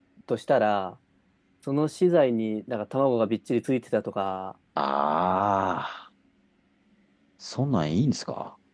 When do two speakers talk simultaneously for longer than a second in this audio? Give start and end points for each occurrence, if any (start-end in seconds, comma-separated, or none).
none